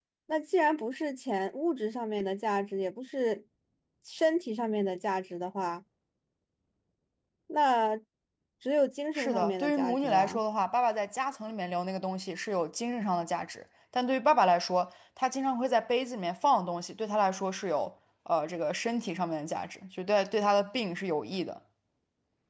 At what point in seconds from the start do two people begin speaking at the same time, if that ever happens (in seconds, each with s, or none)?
9.2 s